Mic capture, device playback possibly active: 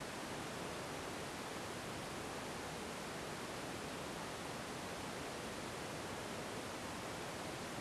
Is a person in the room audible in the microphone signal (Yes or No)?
No